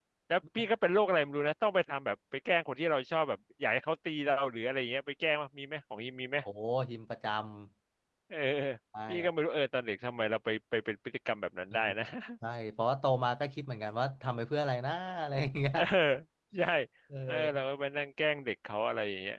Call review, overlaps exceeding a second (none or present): none